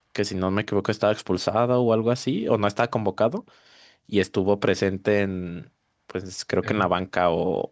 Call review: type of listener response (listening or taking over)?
listening